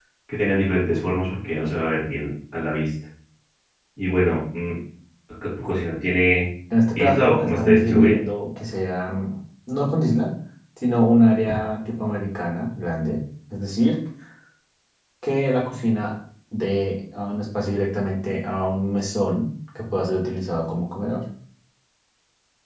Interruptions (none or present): present